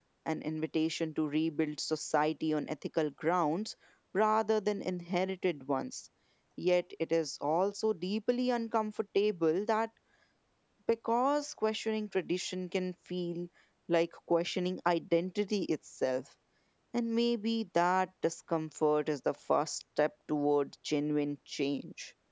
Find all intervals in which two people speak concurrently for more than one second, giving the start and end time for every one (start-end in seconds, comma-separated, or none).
none